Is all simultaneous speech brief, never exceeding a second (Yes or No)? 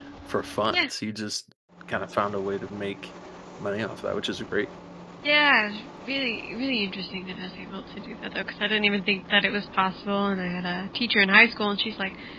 Yes